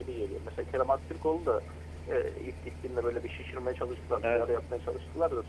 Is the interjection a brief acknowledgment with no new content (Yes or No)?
Yes